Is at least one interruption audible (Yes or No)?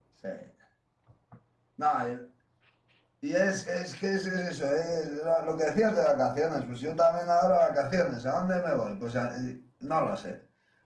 No